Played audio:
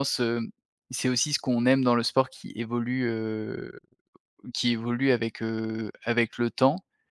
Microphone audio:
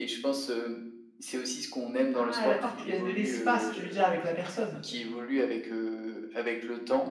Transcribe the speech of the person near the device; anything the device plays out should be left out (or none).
Ah d'accord, tu laisses de l'espace, tu veux dire avec la personne?